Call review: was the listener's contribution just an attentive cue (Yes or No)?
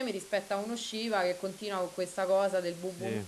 Yes